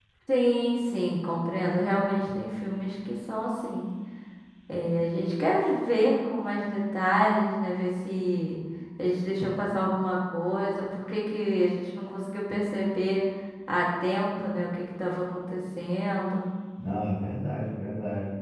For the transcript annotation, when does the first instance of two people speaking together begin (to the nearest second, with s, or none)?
none